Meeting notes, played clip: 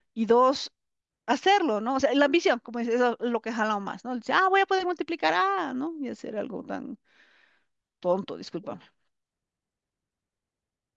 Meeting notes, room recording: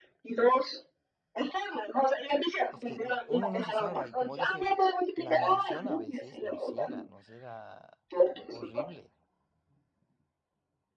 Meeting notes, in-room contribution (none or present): present